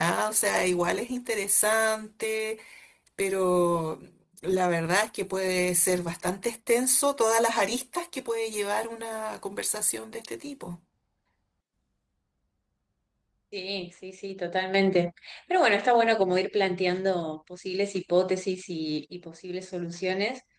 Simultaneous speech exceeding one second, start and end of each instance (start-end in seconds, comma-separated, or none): none